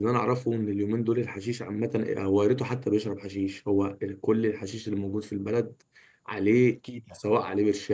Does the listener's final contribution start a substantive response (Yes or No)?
No